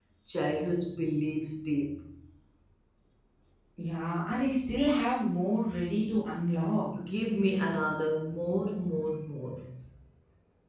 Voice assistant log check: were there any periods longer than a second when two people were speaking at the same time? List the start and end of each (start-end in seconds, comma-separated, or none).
none